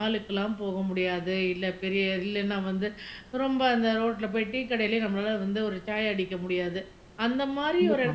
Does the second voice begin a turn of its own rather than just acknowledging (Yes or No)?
No